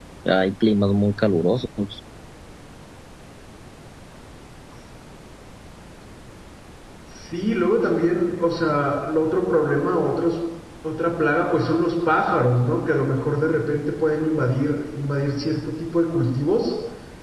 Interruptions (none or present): none